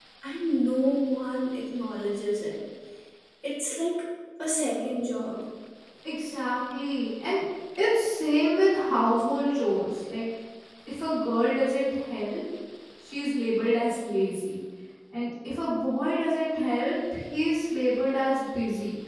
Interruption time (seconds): none

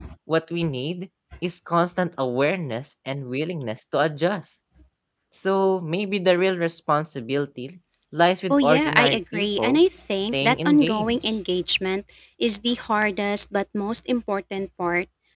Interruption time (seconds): 8.5 s

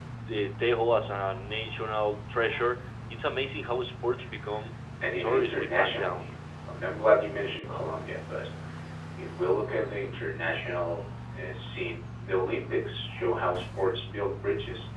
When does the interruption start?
5.0 s

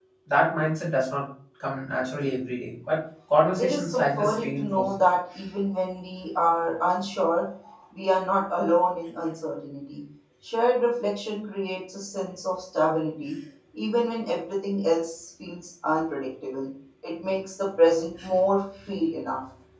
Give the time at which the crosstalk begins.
3.6 s

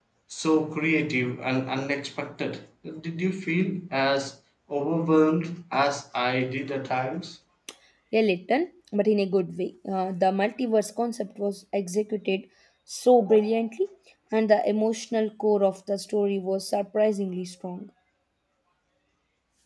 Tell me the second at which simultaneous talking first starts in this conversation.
none

